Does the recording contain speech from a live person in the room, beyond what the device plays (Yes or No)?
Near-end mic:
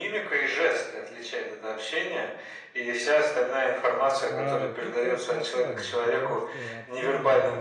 Yes